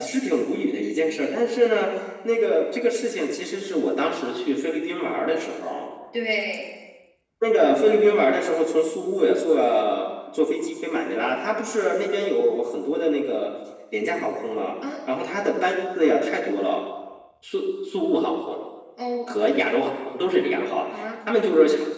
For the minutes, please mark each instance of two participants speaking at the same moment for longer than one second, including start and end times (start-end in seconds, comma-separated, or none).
none